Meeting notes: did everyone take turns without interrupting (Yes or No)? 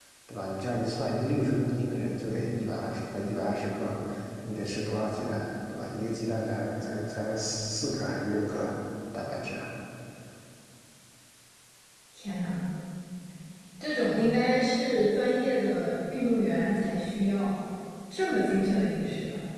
Yes